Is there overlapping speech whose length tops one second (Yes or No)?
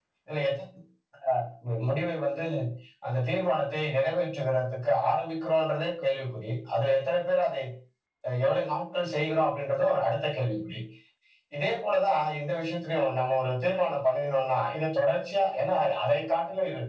No